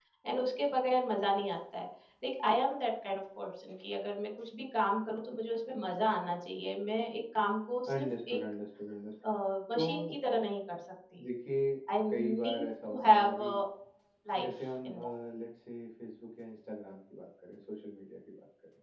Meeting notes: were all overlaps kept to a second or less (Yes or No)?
No